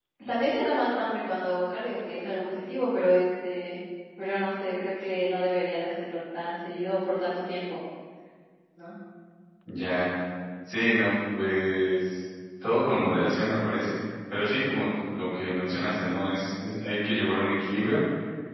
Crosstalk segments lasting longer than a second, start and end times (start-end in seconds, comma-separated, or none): none